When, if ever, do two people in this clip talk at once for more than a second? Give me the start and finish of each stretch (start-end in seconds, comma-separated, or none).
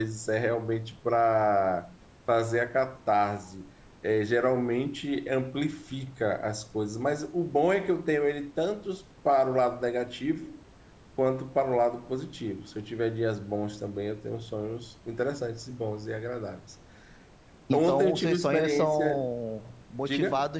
17.7-19.3